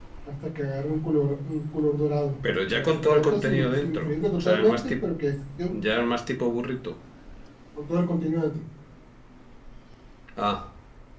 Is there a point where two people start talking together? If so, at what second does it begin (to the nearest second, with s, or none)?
3 s